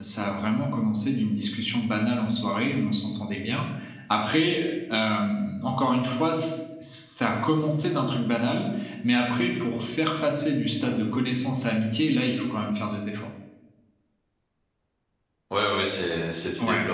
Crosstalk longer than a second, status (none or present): none